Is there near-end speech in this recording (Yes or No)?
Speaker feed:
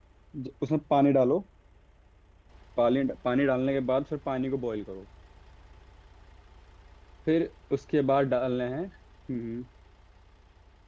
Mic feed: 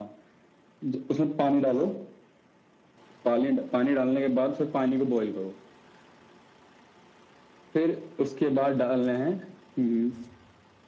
No